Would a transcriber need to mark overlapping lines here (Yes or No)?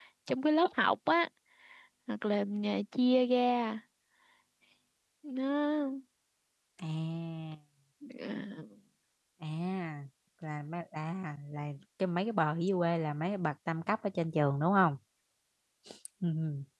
No